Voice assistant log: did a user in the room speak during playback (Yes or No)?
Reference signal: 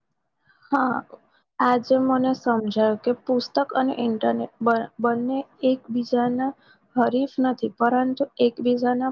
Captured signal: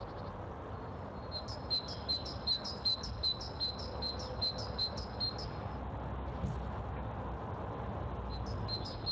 No